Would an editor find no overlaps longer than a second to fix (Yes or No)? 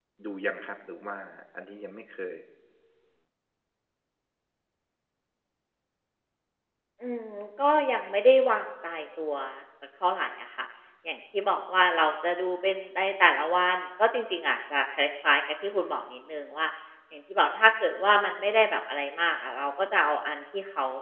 Yes